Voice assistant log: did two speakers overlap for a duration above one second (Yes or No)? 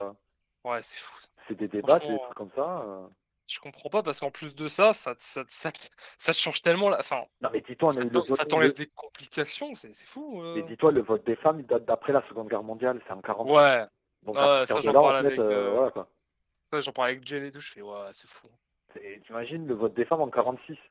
Yes